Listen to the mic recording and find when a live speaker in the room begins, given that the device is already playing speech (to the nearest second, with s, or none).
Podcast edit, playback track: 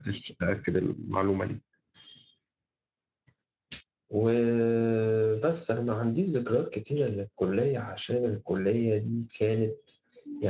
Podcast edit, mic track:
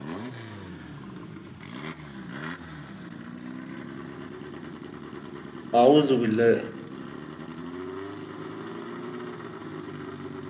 6 s